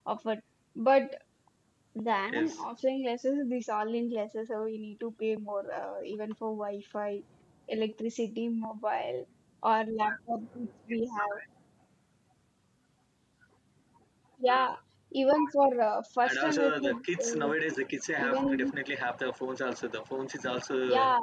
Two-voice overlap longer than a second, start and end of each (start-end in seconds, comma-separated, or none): 16.2-17.5